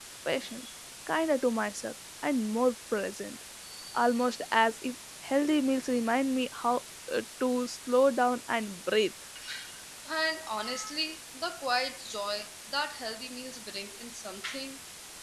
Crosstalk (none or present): none